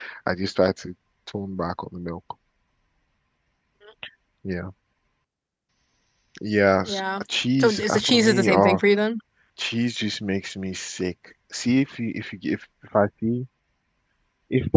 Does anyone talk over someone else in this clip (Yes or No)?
Yes